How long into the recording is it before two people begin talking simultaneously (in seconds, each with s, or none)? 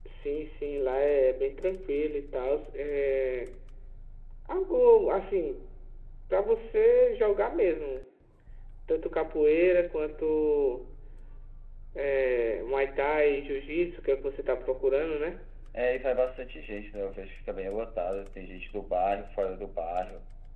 none